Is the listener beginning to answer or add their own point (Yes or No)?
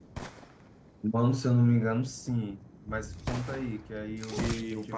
Yes